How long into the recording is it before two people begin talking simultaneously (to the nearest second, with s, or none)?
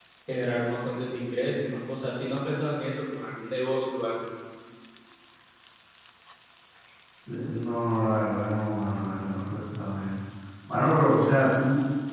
none